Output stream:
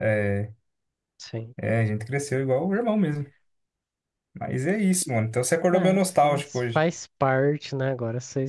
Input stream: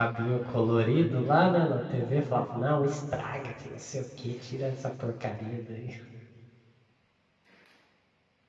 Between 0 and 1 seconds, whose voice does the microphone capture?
user only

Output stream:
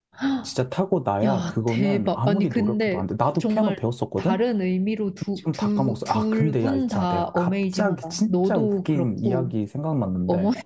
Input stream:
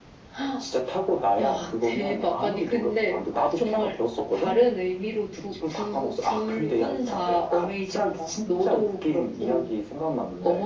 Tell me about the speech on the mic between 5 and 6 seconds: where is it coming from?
echo only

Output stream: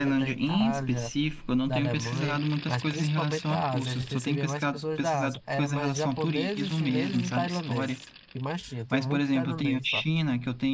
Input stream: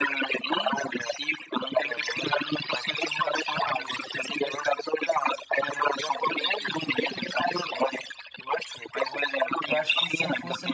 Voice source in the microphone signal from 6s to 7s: echo only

